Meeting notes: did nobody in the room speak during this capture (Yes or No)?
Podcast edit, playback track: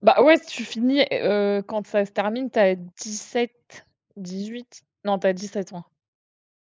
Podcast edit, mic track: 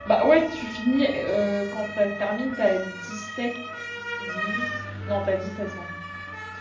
Yes